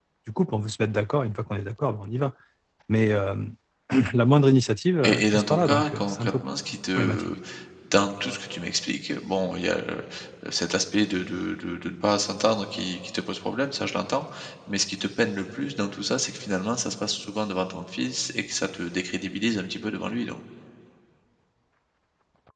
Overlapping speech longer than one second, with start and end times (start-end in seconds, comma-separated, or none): 5.0-6.3